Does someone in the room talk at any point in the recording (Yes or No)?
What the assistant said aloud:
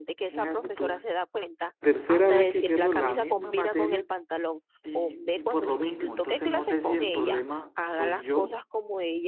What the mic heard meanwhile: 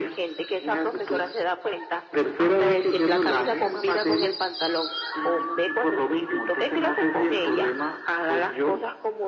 No